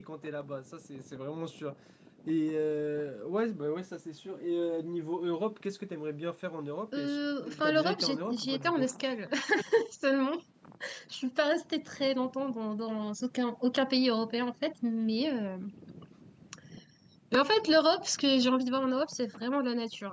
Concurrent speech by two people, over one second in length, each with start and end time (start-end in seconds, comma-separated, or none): 6.9-8.9